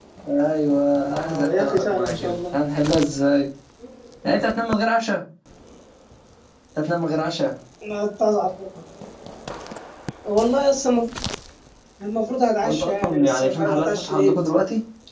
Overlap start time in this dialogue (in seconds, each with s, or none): 1.2 s